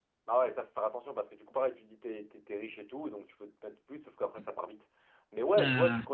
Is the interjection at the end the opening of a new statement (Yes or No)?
No